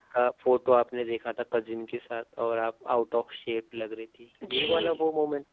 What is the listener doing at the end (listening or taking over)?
taking over